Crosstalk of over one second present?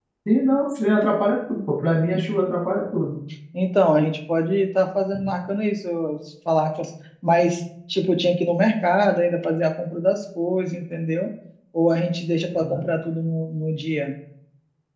No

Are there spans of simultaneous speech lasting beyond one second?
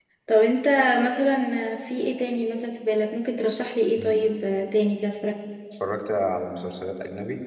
No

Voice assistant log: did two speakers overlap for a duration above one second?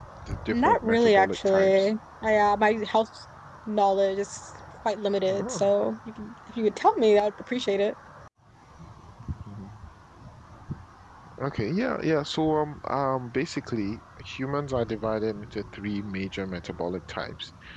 Yes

